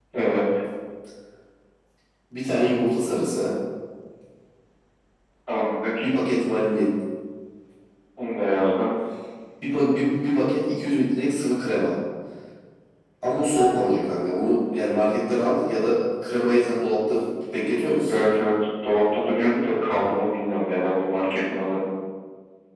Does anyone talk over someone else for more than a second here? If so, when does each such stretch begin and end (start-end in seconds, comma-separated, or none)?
none